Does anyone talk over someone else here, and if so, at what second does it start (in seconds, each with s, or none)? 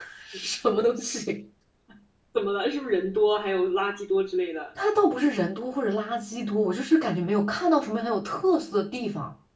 none